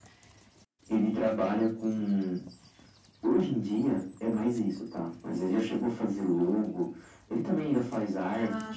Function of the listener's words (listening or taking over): listening